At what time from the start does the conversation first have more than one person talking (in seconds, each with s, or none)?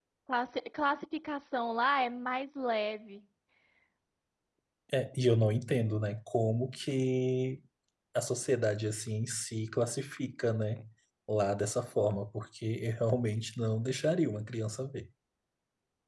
none